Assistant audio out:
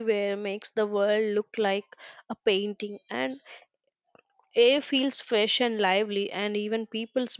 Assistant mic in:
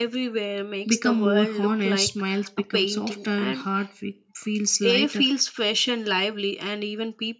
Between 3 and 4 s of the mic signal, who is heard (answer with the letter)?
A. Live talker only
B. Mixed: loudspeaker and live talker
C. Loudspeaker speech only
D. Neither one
B